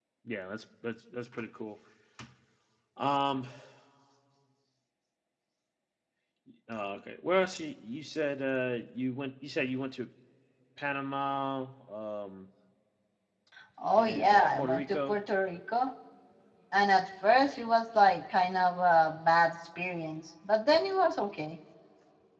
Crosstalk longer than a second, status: present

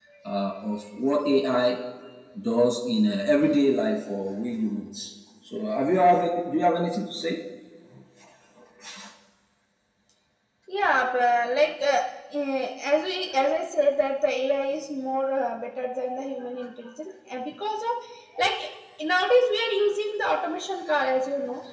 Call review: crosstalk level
none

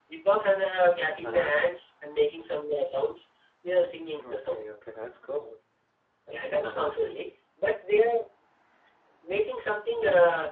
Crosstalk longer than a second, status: none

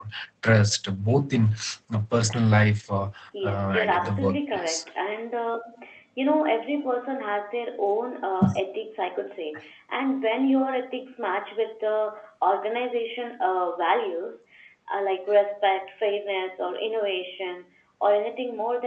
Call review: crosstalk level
present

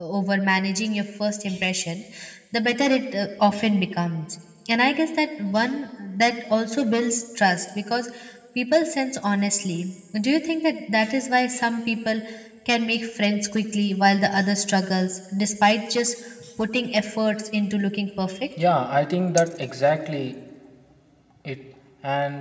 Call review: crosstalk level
none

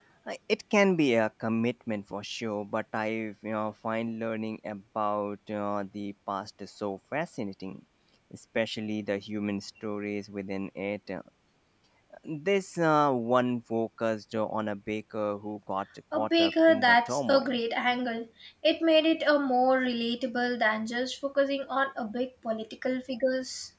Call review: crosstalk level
present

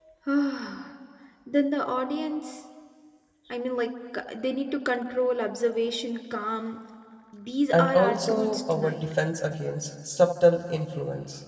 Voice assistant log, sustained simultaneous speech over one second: present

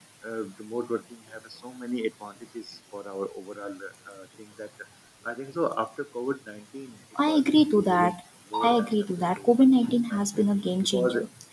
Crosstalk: present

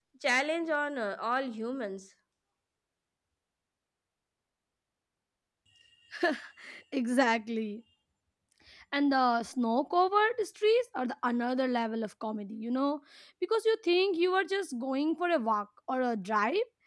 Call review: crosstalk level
none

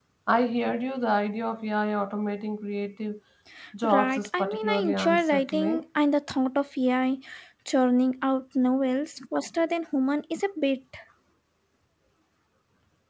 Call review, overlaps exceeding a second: present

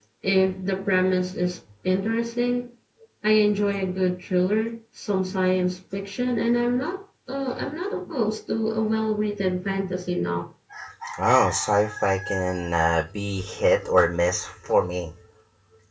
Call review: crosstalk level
none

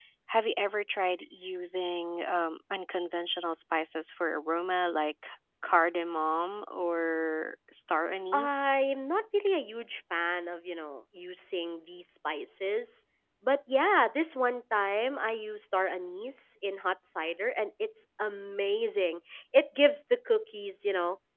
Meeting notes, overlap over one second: none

